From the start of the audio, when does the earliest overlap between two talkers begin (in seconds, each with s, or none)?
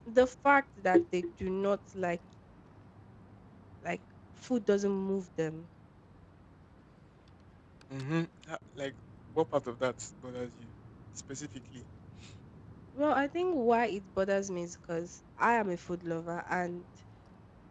none